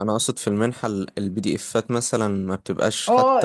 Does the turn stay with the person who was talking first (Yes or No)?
No